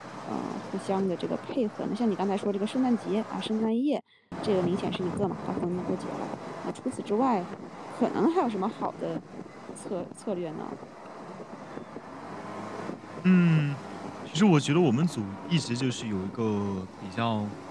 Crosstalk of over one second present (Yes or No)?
No